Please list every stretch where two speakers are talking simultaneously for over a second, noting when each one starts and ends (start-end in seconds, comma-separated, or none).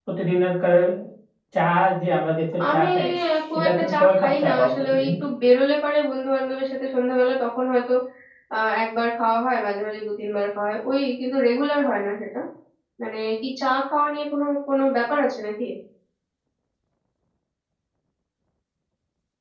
3.5-5.1